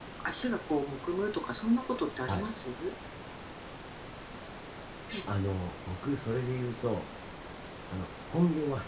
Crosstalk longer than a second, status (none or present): none